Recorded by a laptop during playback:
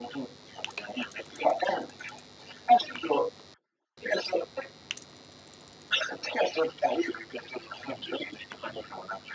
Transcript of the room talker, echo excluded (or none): none